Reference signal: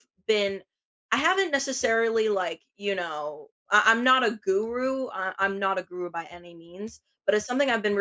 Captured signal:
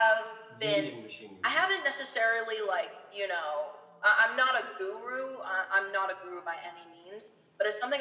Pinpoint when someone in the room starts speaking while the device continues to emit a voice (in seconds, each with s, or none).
0.5 s